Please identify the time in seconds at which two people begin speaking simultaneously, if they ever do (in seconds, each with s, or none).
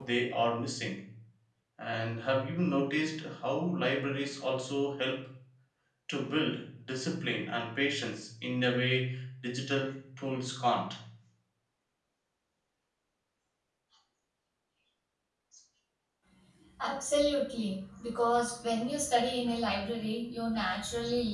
none